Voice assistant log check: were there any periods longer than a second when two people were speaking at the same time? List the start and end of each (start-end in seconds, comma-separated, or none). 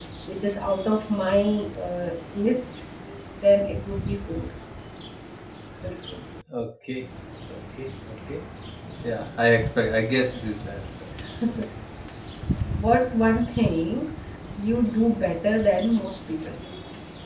none